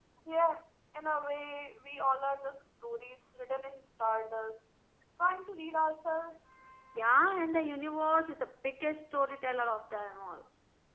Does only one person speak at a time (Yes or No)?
Yes